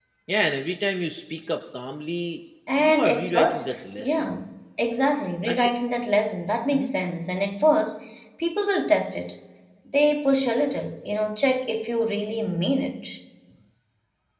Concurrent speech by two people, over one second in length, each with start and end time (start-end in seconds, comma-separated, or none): 2.8-4.2